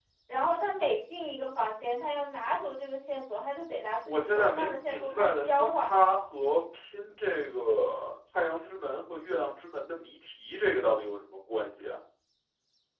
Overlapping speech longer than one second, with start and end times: 4.0-5.9

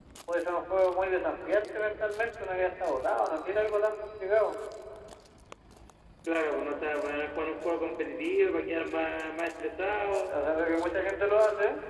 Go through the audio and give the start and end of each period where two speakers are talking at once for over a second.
none

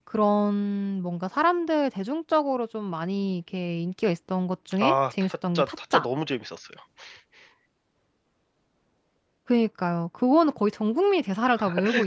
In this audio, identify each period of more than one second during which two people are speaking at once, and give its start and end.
4.8-6.1

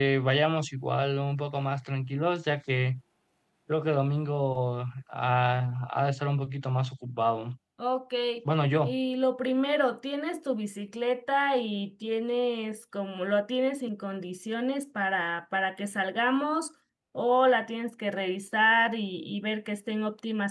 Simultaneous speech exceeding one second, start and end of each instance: none

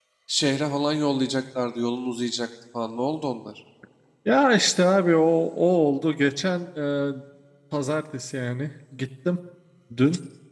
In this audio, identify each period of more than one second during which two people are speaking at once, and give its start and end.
none

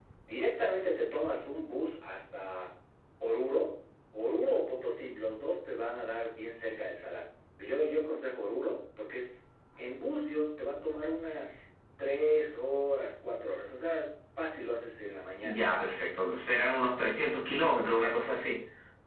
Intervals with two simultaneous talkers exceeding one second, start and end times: none

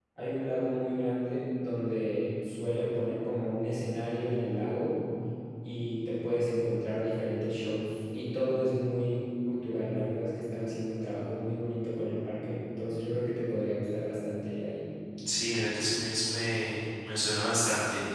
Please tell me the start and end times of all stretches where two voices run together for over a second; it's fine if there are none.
none

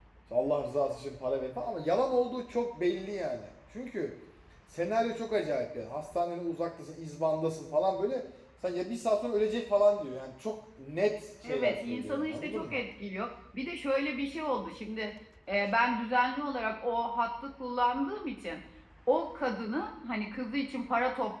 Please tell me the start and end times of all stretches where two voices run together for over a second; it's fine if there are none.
11.4-12.8

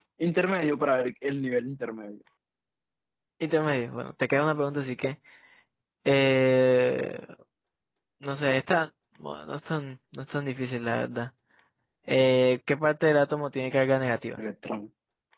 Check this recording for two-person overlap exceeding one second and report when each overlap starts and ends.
none

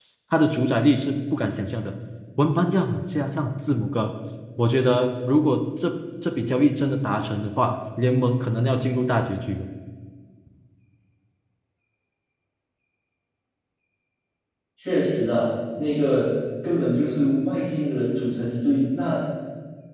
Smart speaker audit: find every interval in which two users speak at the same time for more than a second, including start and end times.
none

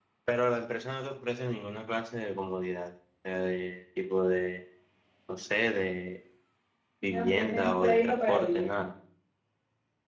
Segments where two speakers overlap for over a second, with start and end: 7.1-8.7

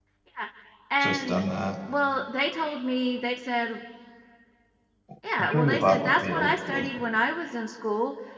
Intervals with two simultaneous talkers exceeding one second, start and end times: 5.4-6.9

